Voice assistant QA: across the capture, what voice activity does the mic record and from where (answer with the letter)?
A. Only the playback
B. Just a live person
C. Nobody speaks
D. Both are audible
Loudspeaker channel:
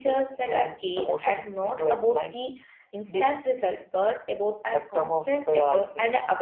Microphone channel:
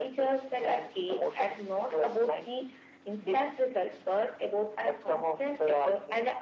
A